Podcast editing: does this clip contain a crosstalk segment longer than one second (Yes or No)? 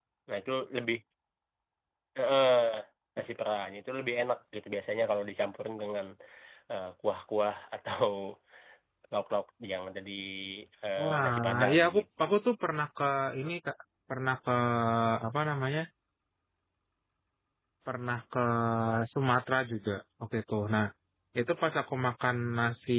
Yes